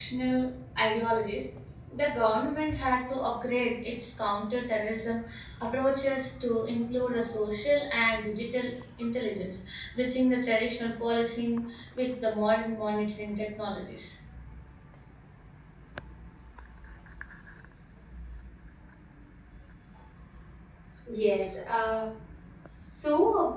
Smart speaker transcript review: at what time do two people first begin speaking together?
none

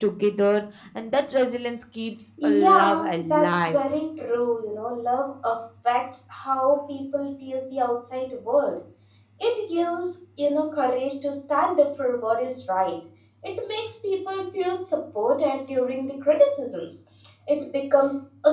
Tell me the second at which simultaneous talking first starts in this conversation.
2 s

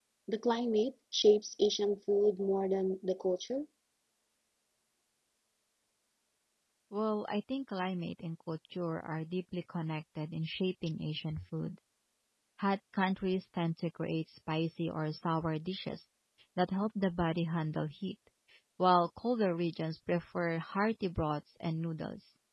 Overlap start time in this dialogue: none

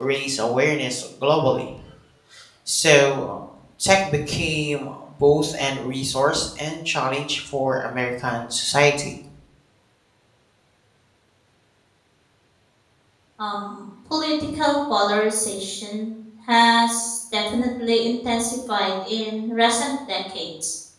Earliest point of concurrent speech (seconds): none

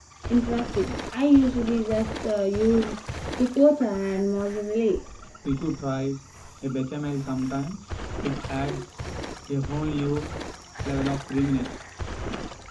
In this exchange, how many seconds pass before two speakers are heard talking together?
none

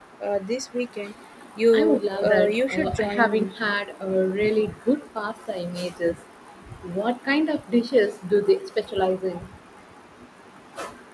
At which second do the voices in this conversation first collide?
2 s

